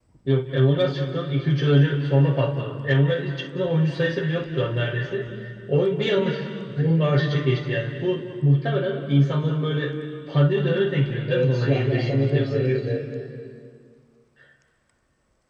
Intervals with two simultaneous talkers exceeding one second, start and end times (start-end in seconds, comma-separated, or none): 11.3-12.7